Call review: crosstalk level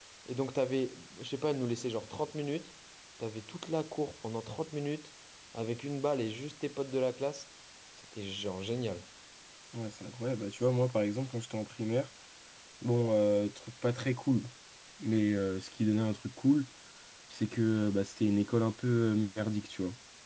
none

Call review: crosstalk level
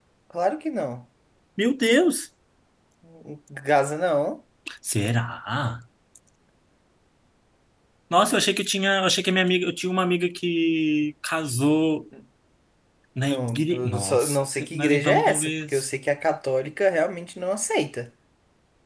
present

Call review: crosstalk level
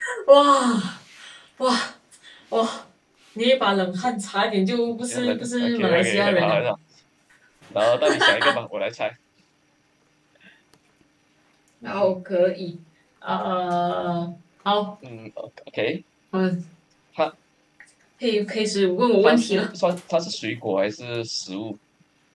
present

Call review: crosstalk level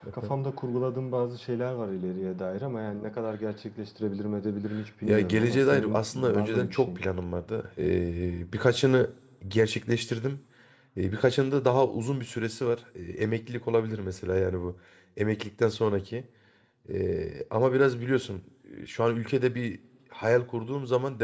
present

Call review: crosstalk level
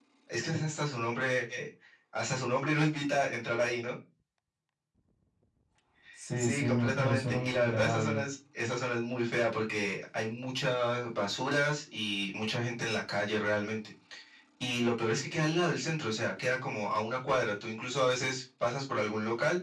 present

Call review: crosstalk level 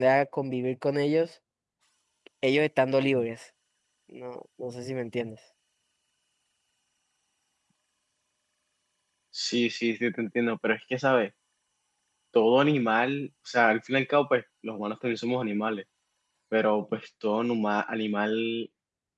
none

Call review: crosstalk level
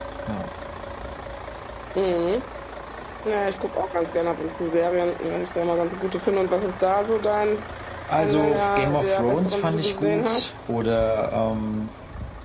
present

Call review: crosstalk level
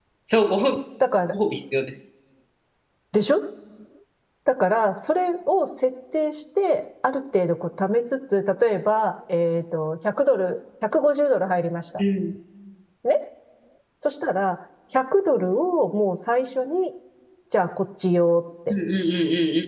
none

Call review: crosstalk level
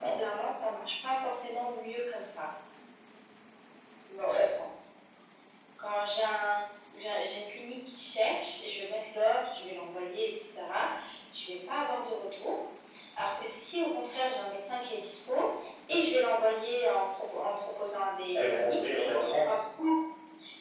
present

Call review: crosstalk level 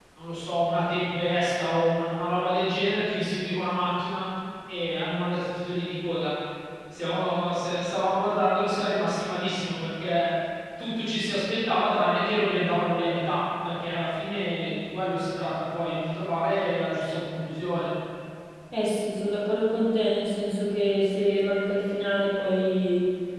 none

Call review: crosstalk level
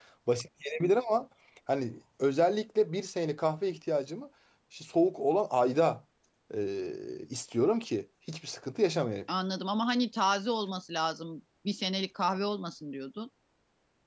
none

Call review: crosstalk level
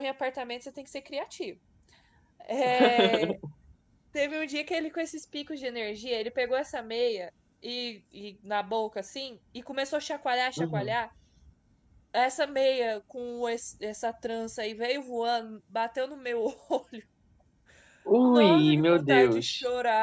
present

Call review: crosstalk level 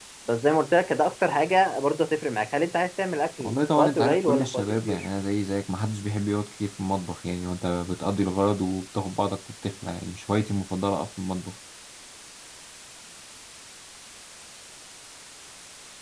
present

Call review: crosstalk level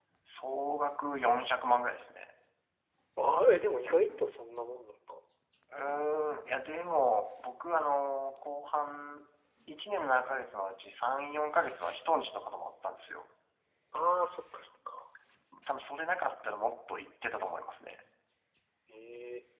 none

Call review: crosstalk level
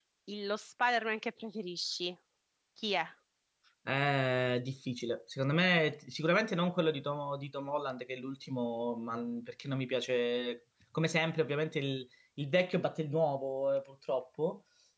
none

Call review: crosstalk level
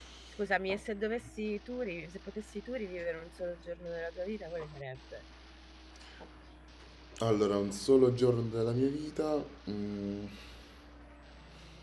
none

